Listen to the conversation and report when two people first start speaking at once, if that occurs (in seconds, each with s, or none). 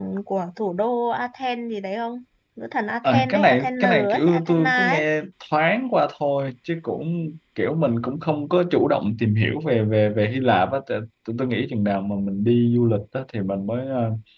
3.0 s